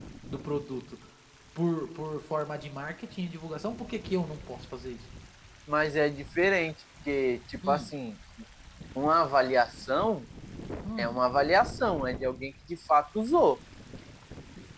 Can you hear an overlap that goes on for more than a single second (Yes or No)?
No